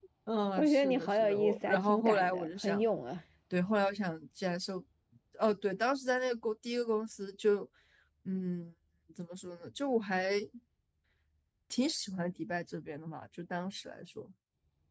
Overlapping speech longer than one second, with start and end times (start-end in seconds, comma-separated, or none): 0.6-2.8